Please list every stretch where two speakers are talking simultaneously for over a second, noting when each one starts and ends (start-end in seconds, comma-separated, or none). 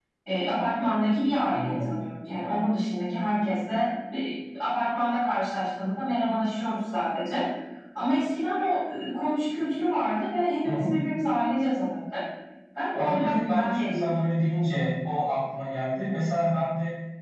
12.9-14.3